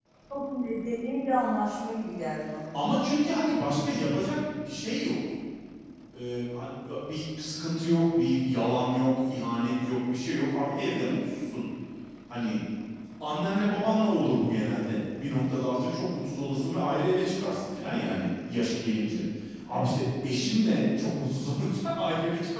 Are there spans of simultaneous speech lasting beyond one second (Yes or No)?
No